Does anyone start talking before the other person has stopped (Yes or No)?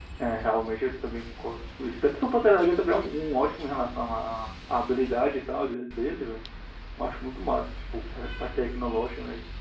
No